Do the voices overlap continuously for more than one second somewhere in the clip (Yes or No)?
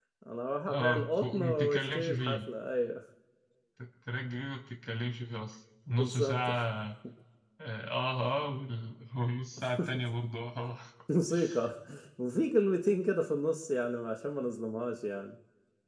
Yes